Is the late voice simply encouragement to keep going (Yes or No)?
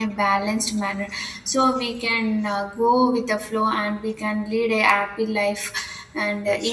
Yes